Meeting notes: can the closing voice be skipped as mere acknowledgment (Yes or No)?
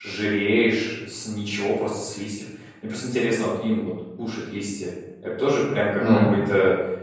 Yes